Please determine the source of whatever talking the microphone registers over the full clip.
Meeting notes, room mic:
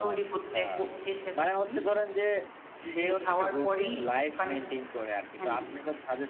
both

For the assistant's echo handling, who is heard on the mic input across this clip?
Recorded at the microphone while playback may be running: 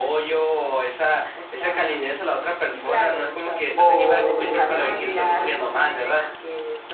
both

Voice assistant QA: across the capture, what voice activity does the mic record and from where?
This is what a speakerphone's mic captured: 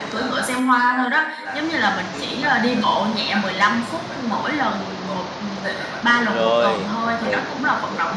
both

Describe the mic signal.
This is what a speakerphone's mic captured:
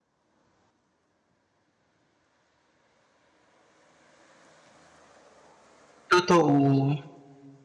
user only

